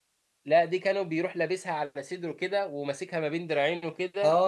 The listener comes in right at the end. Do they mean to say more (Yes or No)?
Yes